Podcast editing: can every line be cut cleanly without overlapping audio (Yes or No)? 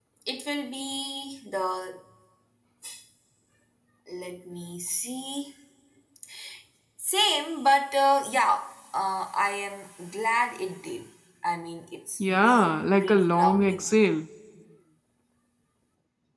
No